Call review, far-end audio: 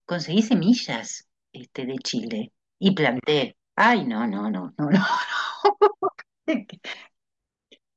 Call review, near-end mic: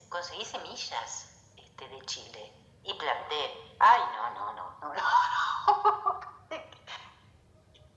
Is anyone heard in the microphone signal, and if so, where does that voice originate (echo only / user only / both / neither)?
echo only